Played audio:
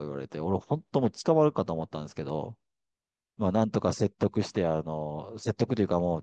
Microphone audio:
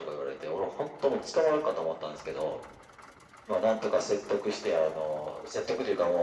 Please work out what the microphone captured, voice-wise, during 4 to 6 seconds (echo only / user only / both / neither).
echo only